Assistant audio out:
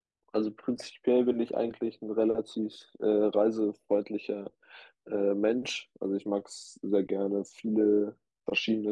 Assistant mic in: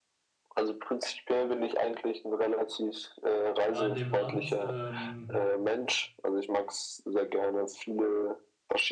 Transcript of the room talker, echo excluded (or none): da in dem Land, ähm,